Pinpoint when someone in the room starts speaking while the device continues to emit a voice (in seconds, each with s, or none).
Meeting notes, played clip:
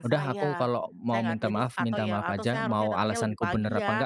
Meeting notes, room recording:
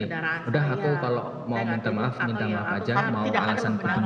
2.9 s